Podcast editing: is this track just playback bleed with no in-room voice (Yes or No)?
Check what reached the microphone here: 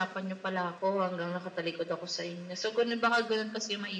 Yes